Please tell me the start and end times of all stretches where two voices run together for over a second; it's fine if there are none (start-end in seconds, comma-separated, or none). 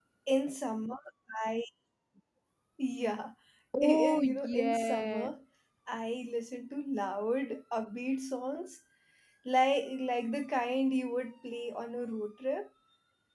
3.8-5.3